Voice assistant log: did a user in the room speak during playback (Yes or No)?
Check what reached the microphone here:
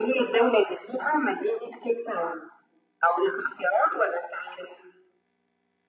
No